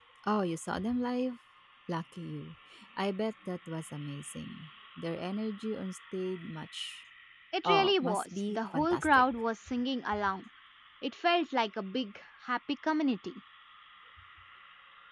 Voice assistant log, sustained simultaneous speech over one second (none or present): present